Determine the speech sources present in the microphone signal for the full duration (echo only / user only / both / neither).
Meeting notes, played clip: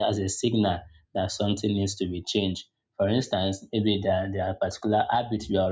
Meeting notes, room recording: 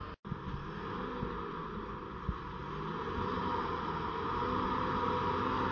neither